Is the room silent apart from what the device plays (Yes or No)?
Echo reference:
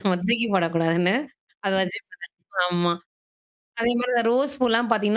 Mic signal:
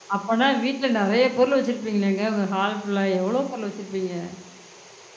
No